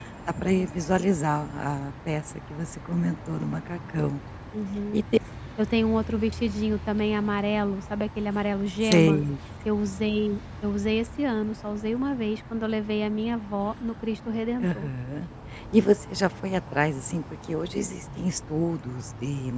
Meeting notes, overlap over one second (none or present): none